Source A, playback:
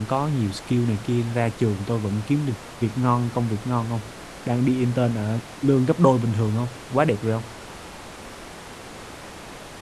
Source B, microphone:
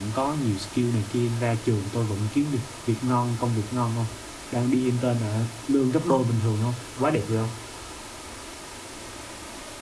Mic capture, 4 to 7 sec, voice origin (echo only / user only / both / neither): echo only